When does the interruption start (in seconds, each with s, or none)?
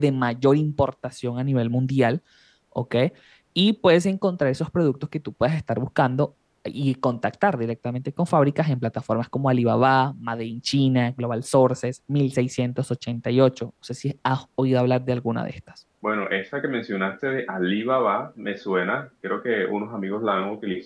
none